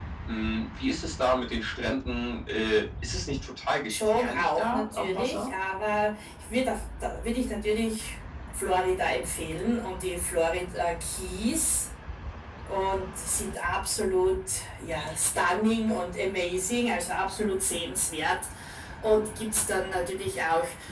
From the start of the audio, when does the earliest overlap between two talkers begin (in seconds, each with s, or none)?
3.9 s